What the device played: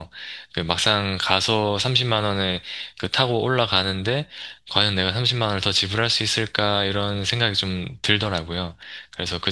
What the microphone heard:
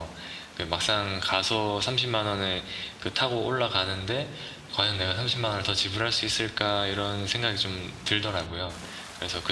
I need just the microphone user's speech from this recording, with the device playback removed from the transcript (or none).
none